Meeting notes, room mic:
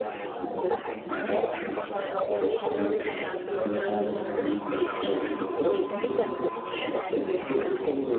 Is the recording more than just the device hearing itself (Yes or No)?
Yes